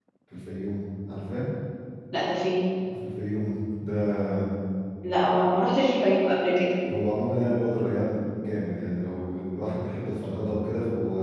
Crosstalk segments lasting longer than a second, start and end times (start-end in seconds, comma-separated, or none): none